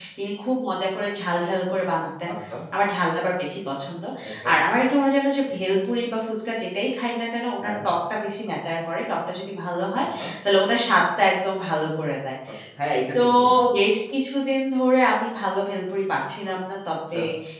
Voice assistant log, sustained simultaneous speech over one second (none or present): none